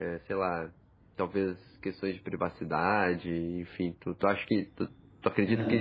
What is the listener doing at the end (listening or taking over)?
taking over